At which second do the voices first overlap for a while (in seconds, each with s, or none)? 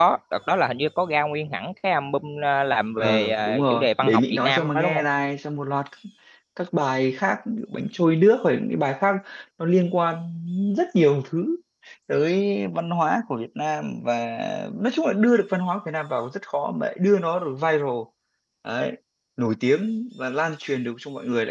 3.0 s